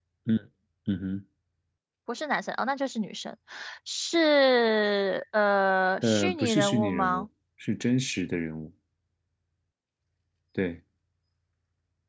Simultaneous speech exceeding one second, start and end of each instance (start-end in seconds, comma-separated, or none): 6.0-7.2